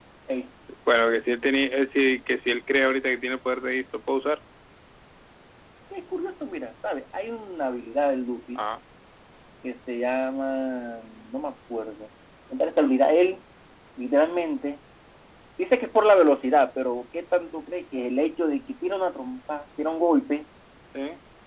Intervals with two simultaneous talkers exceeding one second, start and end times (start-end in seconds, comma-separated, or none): none